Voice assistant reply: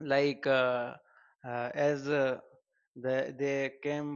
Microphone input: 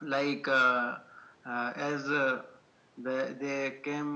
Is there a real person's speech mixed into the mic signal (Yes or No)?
No